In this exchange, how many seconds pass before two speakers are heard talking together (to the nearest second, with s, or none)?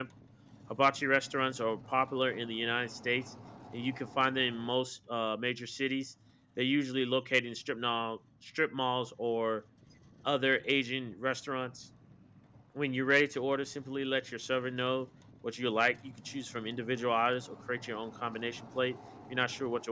none